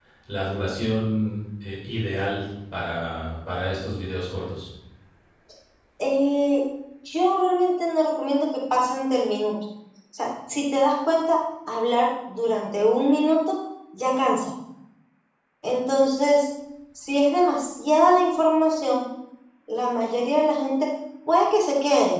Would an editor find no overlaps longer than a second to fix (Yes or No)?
Yes